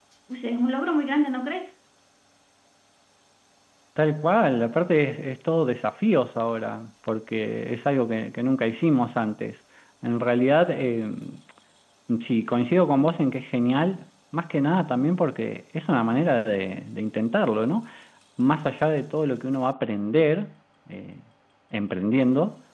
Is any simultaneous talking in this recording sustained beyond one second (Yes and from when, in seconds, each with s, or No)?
No